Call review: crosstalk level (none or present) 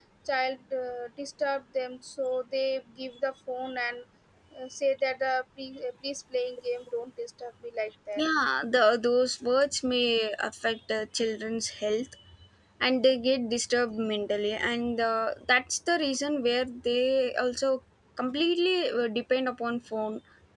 none